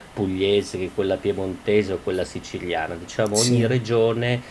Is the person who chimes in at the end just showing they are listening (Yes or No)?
Yes